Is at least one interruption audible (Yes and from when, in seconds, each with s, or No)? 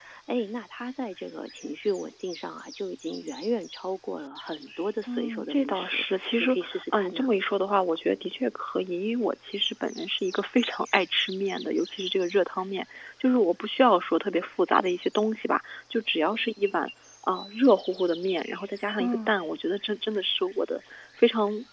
Yes, from 5.1 s